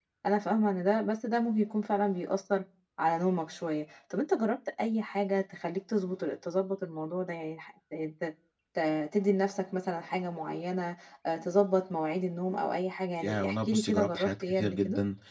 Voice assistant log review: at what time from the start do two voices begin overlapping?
13.2 s

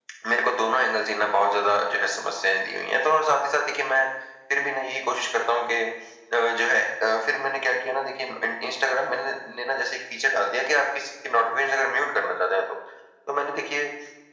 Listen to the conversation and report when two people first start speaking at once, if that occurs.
none

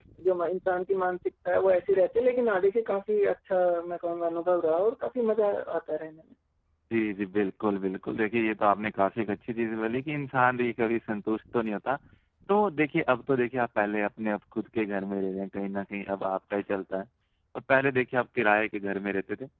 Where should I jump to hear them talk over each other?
none

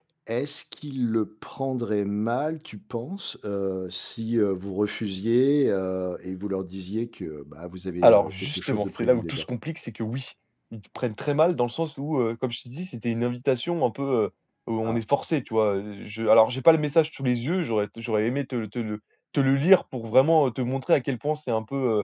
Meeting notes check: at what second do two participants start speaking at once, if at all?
8.0 s

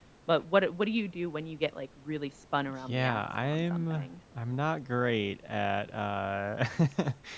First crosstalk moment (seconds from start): 2.9 s

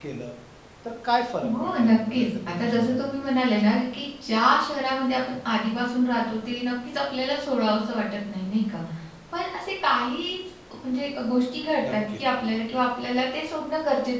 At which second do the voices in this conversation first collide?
1.6 s

